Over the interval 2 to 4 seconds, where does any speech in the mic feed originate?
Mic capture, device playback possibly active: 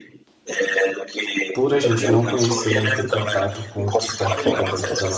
both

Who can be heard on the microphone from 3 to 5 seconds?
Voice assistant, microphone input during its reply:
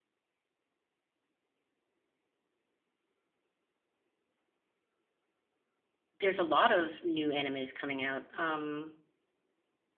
neither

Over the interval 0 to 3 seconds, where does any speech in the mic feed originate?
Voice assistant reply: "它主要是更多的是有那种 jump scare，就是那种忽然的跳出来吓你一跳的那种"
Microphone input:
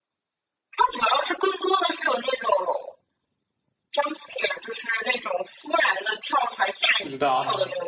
echo only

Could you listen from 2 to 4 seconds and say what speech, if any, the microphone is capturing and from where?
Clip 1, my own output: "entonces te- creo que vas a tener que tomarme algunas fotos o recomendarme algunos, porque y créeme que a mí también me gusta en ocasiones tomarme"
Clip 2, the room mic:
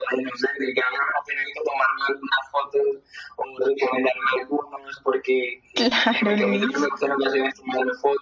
echo only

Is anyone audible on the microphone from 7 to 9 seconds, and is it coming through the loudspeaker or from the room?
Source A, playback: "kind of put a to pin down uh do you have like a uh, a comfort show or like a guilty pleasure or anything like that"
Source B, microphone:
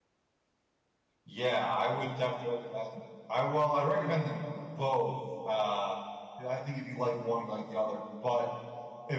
user only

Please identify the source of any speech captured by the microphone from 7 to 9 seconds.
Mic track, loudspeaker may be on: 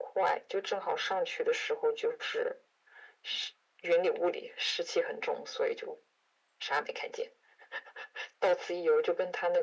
echo only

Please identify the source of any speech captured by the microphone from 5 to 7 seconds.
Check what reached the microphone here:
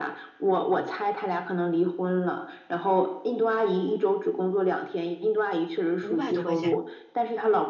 both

